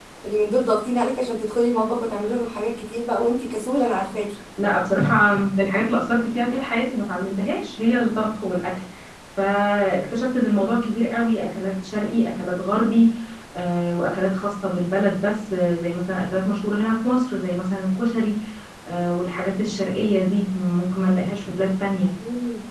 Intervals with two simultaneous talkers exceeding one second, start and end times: none

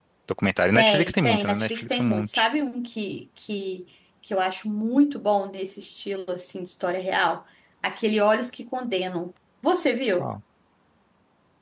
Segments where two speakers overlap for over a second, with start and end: 0.7-2.5

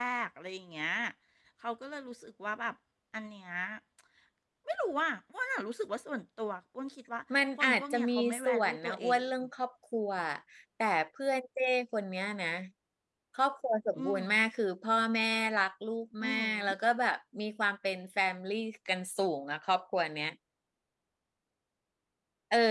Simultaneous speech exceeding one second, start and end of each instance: 7.6-9.3

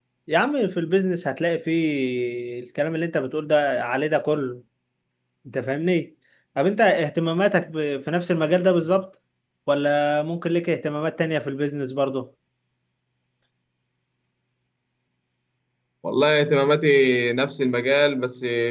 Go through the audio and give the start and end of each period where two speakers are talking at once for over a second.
none

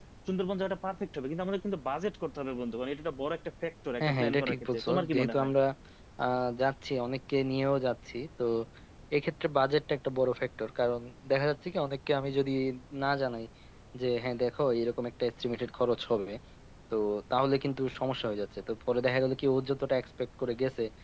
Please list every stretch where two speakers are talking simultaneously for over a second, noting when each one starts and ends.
4.0-5.5

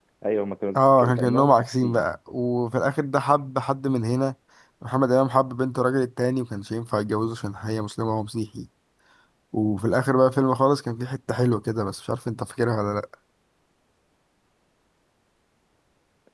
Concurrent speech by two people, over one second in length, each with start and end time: 0.8-2.0

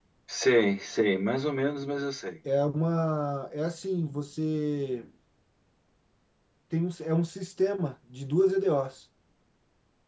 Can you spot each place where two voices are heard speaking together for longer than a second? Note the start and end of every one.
none

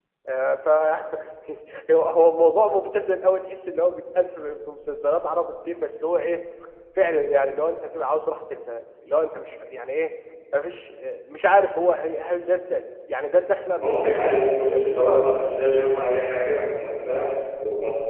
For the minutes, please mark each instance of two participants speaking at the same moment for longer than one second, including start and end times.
13.7-15.7

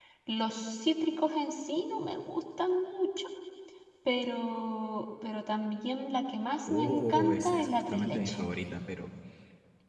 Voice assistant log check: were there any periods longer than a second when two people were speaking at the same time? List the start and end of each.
6.7-8.4

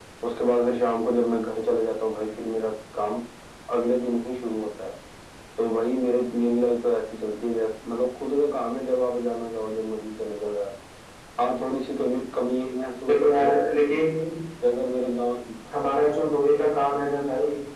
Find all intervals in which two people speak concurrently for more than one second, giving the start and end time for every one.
none

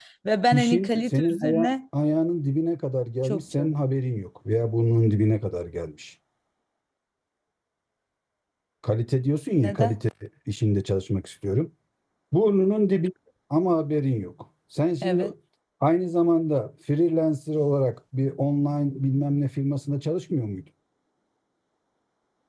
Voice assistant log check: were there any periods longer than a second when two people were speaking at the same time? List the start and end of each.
0.5-1.7

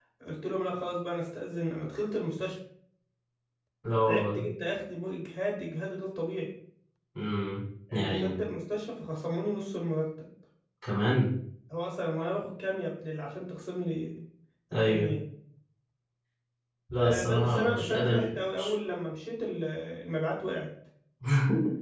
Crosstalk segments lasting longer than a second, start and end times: 17.0-18.7

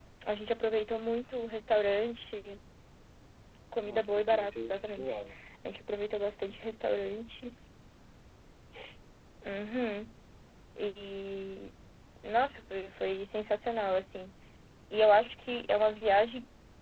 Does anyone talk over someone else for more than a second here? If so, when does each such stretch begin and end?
3.8-5.2

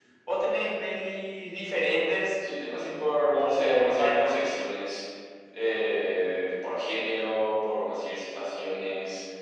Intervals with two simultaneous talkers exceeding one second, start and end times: 3.3-4.7

